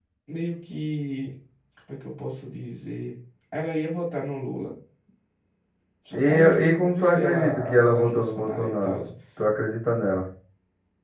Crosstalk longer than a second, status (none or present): present